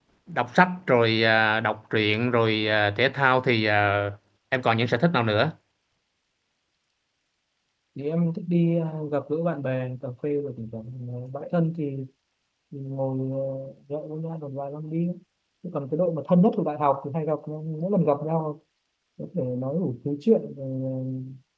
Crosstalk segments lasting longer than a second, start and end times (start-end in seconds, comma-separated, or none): none